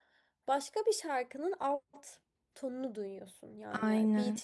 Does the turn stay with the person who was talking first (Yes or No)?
Yes